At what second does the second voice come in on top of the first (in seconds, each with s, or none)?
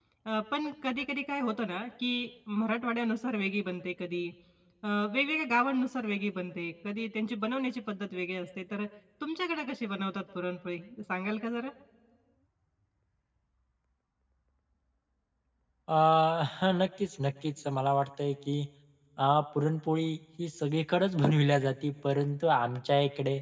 none